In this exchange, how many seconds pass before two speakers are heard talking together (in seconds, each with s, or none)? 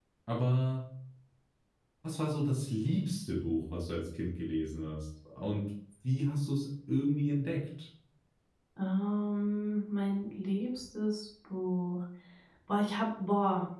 none